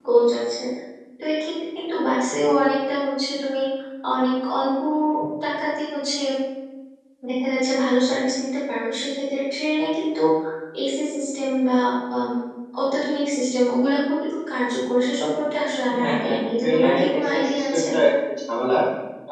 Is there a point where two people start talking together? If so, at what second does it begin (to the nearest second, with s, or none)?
16 s